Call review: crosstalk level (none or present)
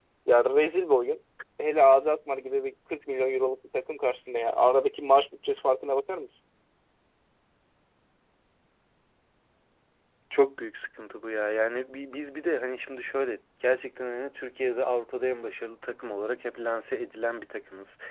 none